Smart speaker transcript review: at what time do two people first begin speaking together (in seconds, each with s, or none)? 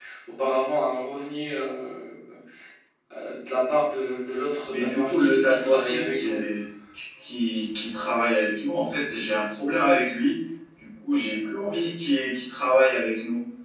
4.7 s